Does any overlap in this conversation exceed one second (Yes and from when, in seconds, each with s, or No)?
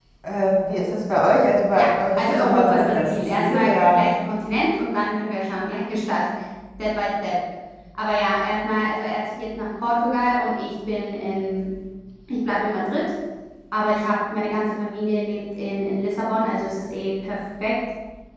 Yes, from 1.8 s